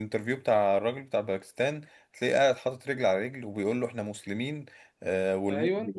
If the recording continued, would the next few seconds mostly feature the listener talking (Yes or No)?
No